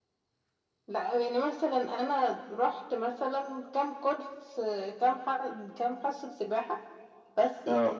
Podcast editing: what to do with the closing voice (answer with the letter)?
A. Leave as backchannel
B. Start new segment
A